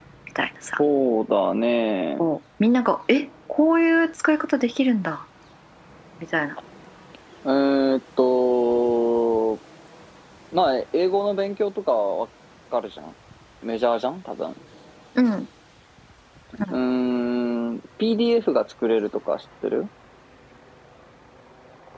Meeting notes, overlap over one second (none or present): none